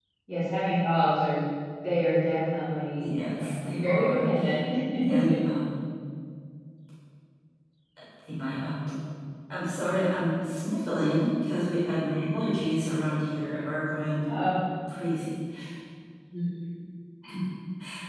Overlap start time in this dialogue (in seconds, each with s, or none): 3.0 s